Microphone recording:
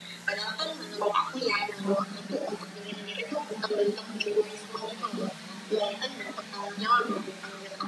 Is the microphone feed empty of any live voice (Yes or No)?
Yes